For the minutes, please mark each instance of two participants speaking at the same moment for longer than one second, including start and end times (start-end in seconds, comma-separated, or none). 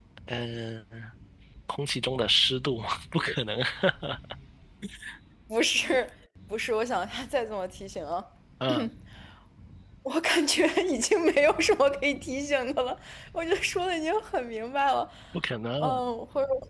none